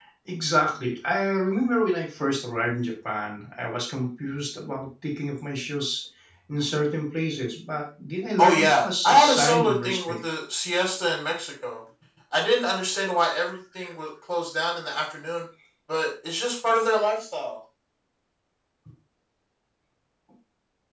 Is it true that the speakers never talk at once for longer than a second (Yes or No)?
No